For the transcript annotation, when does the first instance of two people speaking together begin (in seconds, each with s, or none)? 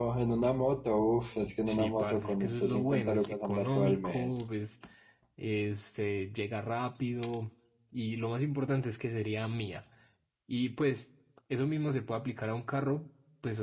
1.7 s